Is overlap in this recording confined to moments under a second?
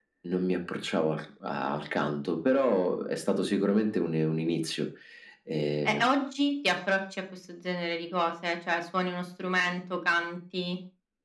Yes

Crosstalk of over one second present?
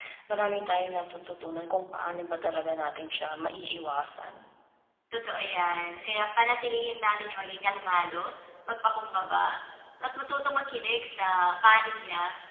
No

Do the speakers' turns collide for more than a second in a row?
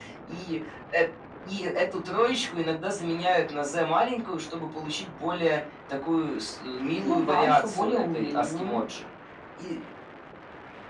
Yes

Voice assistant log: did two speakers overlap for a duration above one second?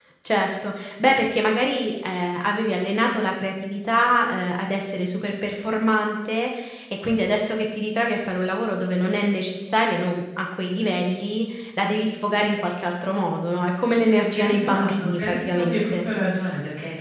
Yes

